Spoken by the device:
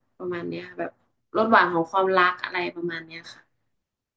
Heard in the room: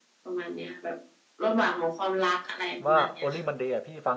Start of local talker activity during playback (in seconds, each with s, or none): 2.9 s